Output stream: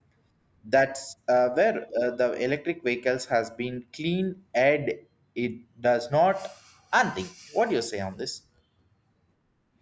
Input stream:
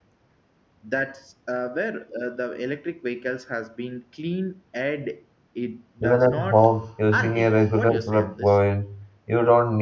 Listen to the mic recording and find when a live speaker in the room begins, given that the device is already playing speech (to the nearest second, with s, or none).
6 s